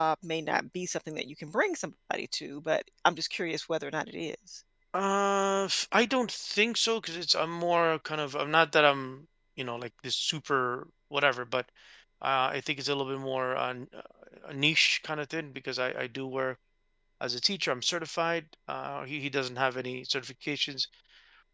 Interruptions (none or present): none